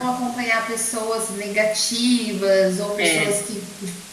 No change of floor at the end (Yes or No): Yes